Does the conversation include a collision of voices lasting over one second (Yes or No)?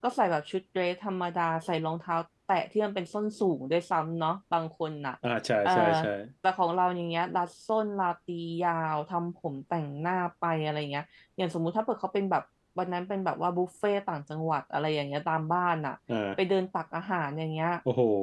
No